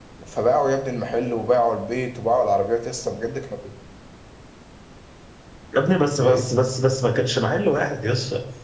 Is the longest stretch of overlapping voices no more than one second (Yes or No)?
Yes